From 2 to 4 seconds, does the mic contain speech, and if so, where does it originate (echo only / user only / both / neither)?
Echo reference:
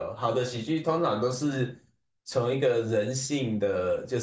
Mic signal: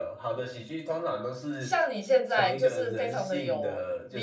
both